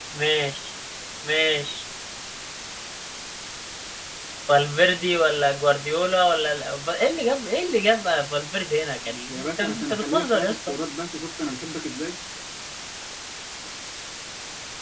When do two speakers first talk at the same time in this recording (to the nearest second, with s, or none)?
9 s